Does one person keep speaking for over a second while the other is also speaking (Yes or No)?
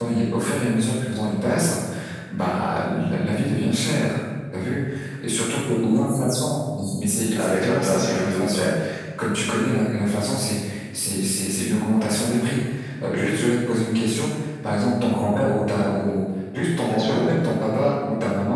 Yes